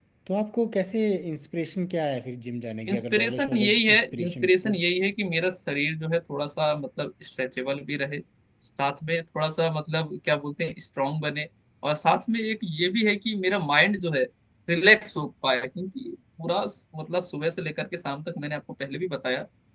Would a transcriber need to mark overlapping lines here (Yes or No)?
Yes